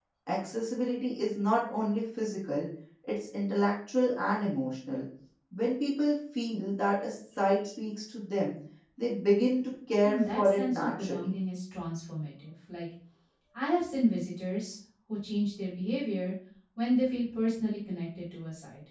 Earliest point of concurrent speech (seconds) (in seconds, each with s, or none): 10.0 s